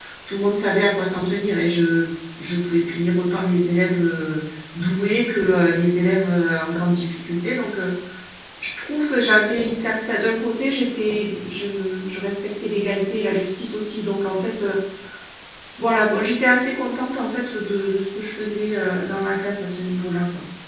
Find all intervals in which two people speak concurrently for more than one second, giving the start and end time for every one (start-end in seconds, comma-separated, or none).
none